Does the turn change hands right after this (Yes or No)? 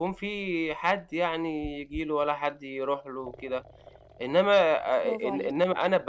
No